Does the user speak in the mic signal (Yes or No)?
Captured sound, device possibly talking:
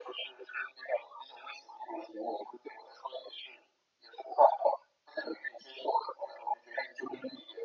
No